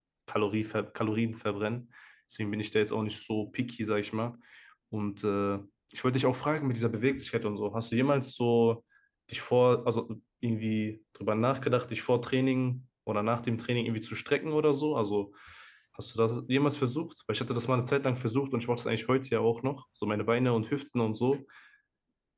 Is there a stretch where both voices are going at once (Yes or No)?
No